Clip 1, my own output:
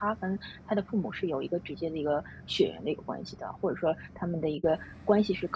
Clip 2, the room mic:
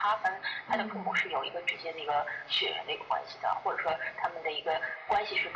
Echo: present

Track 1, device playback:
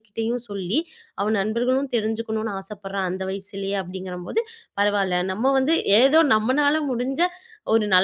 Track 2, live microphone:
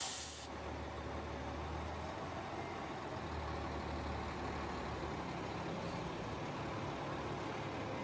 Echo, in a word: none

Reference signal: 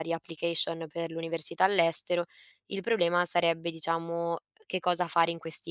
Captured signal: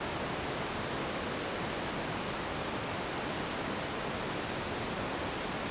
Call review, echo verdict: none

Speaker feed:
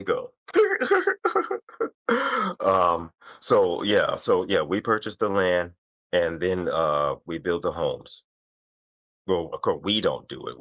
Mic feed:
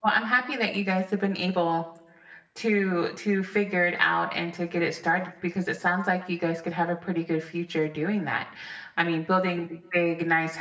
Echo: none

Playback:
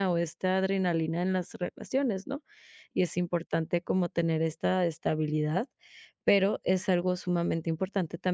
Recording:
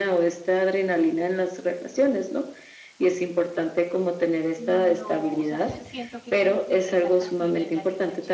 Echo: present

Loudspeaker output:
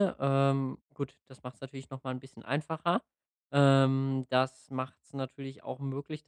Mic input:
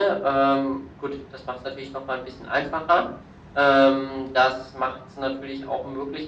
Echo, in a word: present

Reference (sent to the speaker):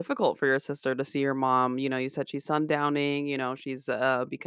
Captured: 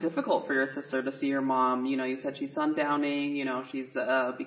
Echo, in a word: present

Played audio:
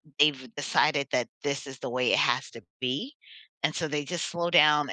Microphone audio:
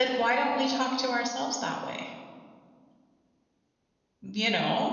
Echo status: none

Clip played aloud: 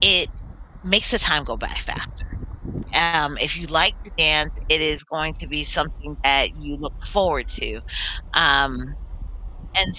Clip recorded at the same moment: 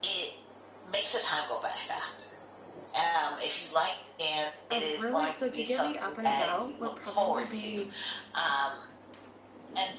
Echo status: present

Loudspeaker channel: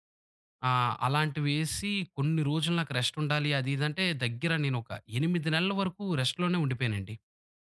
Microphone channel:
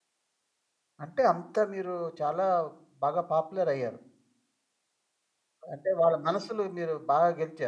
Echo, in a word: none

